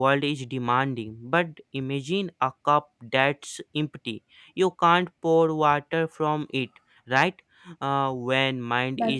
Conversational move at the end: listening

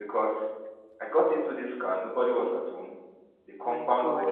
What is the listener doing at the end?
listening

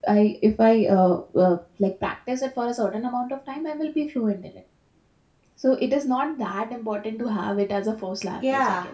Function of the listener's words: taking over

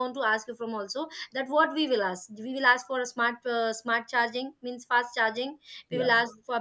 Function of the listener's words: listening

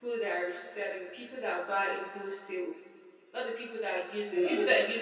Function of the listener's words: listening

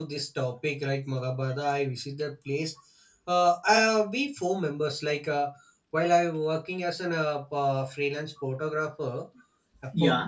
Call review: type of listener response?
listening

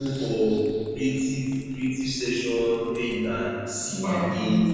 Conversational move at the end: listening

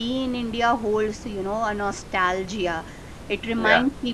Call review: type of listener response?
listening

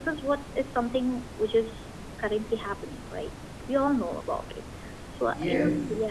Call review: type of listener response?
taking over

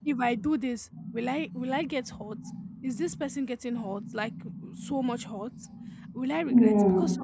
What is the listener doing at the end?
listening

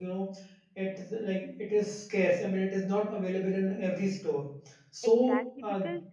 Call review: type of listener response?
taking over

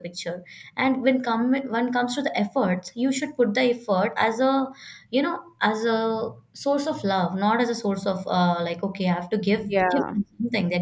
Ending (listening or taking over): listening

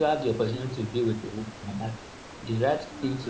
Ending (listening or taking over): listening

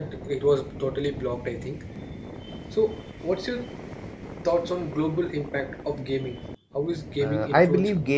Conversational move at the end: taking over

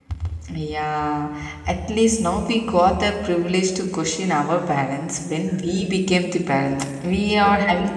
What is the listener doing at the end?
listening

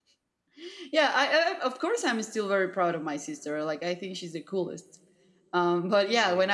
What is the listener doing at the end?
listening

